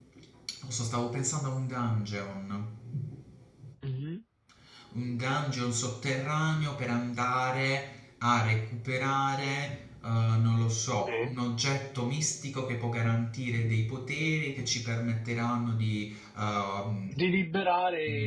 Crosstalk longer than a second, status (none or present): none